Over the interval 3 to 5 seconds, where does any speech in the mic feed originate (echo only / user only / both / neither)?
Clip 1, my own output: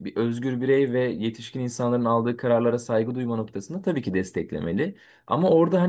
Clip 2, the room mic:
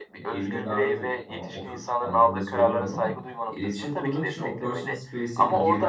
both